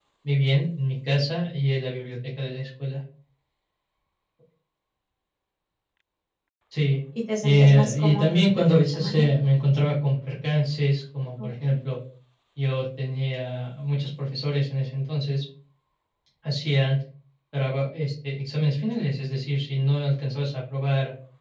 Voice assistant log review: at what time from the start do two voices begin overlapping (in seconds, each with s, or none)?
7.4 s